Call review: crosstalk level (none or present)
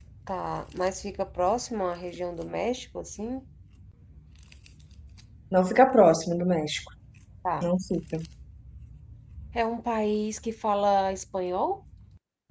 none